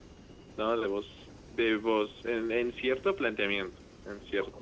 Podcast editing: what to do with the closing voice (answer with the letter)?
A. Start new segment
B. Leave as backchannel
A